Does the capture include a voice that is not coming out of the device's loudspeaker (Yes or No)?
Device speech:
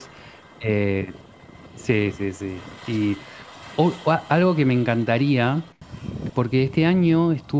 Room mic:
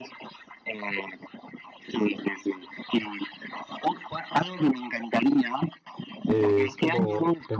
Yes